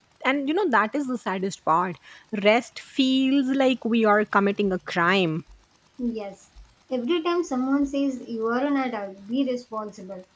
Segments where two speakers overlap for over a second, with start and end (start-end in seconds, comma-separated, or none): none